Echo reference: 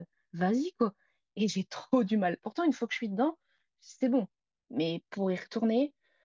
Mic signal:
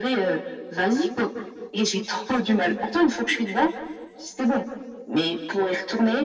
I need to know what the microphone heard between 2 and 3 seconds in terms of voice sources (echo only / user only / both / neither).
echo only